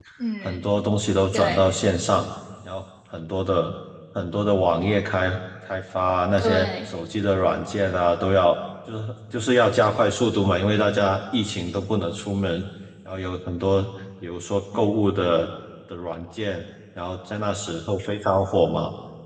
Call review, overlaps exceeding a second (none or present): none